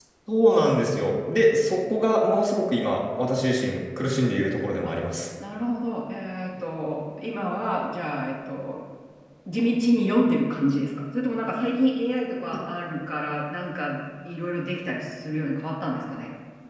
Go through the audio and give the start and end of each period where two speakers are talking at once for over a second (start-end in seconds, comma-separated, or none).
none